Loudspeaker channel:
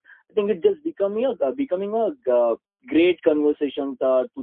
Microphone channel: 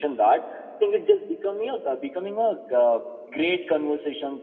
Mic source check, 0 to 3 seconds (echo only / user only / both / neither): echo only